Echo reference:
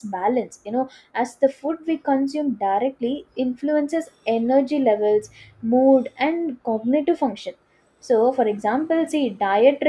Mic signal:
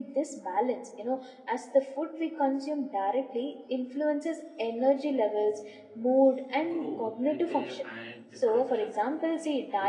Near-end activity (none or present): present